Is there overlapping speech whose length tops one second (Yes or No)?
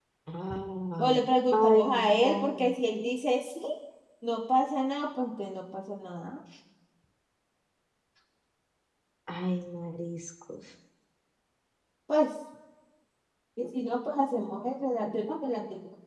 Yes